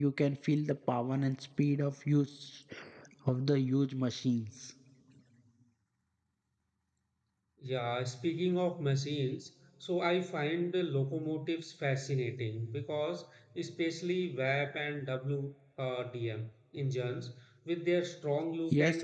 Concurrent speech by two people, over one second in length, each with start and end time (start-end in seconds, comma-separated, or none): none